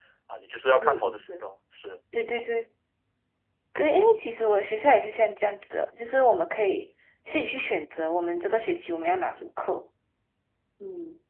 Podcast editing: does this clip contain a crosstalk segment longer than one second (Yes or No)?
No